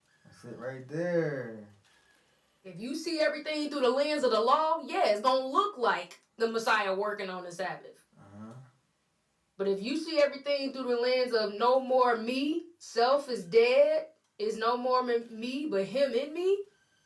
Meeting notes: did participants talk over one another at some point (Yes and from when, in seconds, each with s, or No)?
No